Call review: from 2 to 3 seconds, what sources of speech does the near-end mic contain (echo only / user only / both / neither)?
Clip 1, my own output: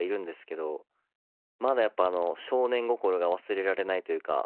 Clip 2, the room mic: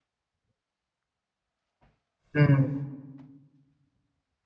user only